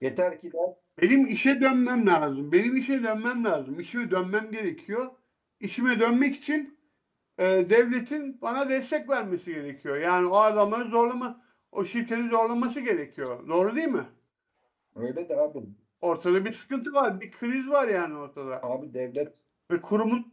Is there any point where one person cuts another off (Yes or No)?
No